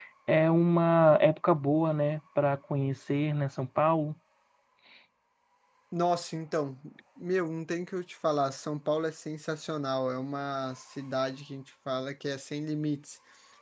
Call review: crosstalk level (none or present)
none